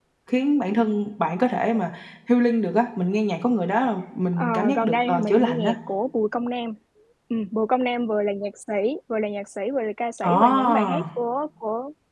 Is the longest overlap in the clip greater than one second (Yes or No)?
Yes